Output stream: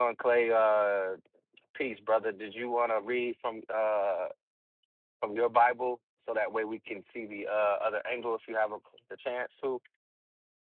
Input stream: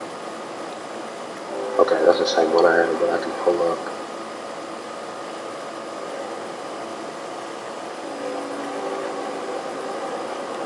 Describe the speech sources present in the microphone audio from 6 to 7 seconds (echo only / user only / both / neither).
neither